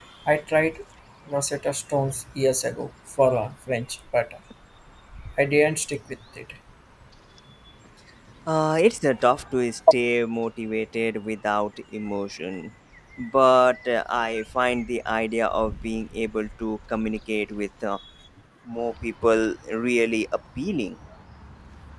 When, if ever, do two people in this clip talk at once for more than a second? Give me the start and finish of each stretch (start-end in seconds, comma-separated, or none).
none